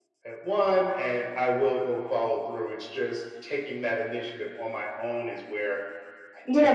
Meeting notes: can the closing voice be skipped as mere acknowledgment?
No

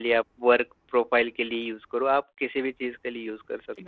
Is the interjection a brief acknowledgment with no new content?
No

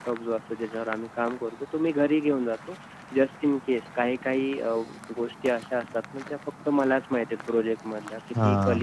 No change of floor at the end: Yes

